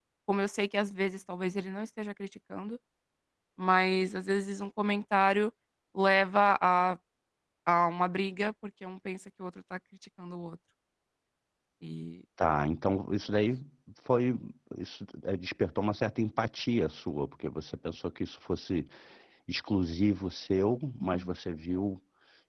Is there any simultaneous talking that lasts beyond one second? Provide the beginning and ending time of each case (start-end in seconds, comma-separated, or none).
none